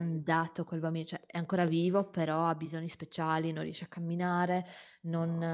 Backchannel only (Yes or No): Yes